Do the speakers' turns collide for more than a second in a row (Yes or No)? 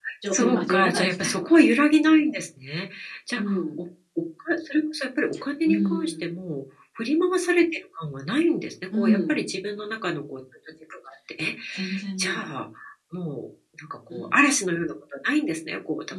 Yes